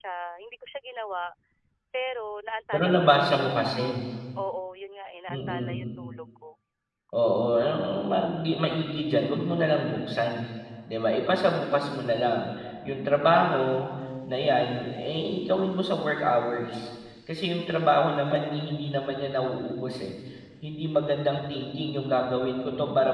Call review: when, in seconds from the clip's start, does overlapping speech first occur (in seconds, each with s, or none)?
2.7 s